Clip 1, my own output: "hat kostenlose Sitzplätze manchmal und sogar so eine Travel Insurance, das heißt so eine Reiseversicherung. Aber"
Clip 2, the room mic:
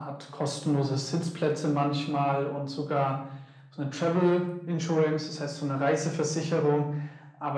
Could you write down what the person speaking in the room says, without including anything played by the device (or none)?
none